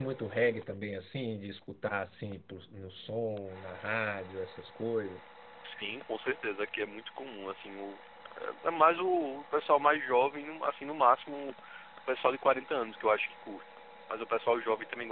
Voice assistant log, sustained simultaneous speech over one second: none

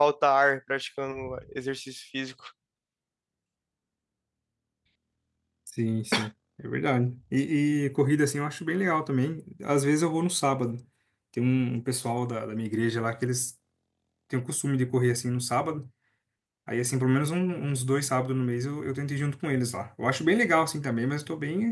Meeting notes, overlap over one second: none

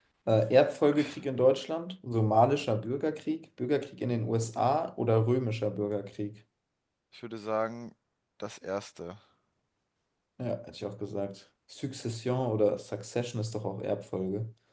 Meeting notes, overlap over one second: none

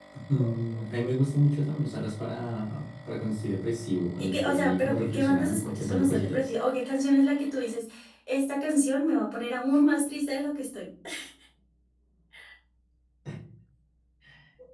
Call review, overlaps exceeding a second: present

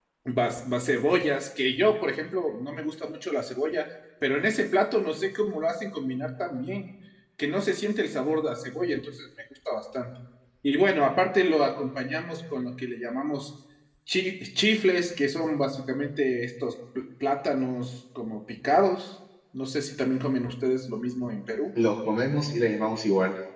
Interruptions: none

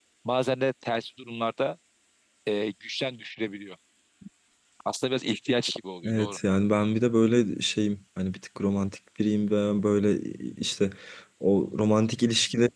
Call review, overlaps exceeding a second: none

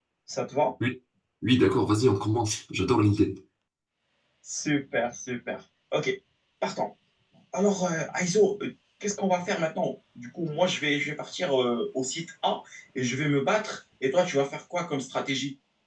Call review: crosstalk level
none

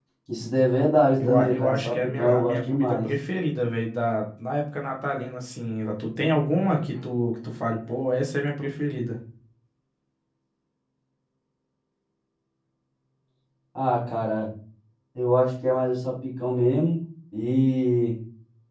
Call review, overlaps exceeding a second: present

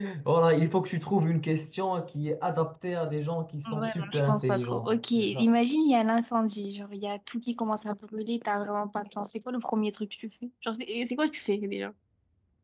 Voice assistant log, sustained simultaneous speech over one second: present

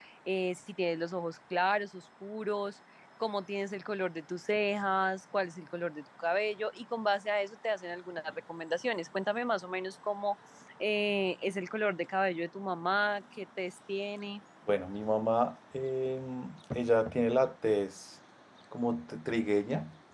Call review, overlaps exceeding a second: none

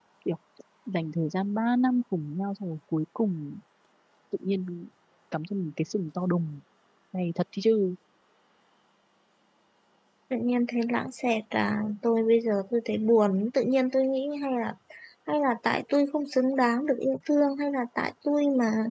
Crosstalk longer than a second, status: none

